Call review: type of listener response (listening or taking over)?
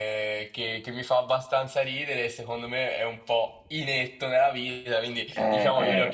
listening